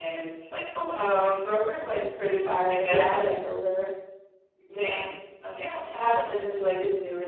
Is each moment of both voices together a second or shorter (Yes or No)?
Yes